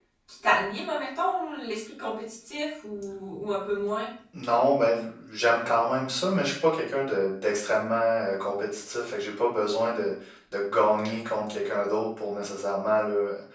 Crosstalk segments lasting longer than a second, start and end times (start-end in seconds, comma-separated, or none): none